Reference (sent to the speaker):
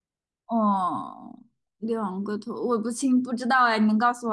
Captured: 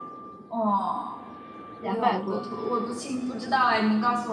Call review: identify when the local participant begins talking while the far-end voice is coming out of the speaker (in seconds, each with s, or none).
1.8 s